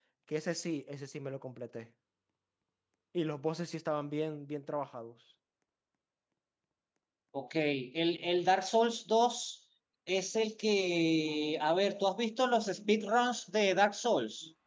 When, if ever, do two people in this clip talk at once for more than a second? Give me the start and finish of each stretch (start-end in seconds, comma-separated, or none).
none